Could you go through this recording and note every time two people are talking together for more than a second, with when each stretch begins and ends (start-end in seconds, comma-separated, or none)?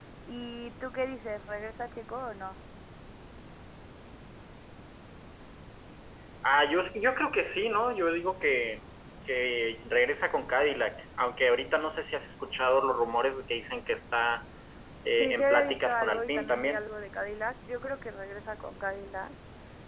15.2-16.8